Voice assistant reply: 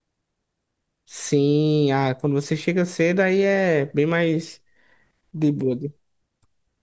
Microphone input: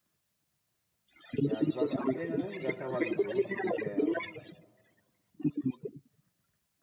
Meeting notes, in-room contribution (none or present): present